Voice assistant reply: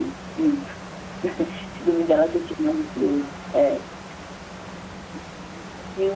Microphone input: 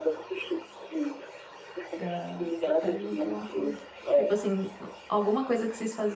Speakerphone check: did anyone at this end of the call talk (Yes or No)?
Yes